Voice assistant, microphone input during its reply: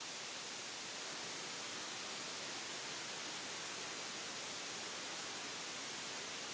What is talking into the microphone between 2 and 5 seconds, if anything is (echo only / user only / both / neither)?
neither